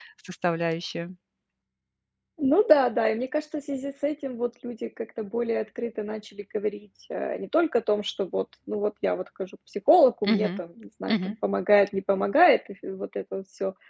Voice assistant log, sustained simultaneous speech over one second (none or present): none